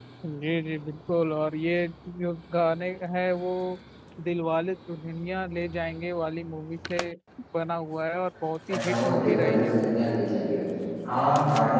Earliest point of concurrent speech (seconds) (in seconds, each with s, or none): 8.7 s